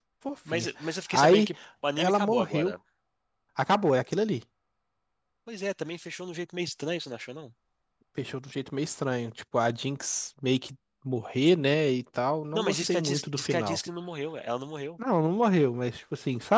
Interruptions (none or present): present